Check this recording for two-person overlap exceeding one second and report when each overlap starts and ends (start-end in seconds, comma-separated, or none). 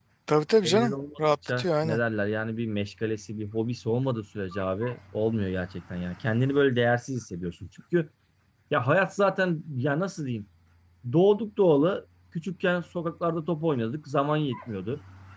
0.6-2.0